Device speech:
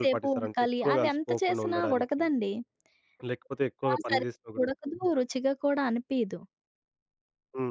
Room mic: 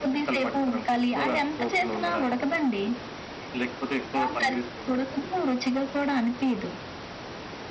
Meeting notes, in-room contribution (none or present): none